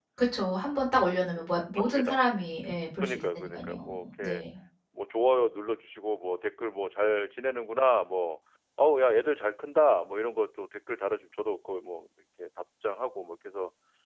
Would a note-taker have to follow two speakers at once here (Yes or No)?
Yes